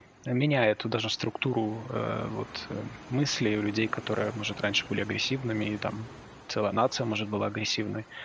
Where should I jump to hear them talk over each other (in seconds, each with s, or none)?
none